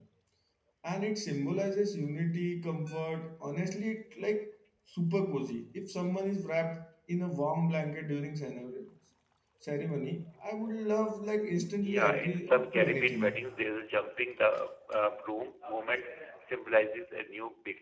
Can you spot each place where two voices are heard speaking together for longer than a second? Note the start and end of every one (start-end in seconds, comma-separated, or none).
11.8-13.2